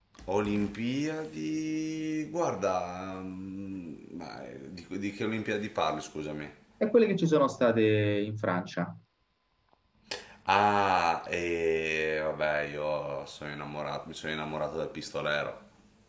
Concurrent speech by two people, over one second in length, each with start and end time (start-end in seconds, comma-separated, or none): none